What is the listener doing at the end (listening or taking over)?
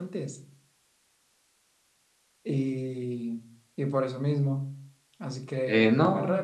taking over